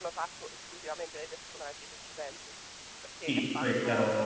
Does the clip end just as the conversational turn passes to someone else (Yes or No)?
Yes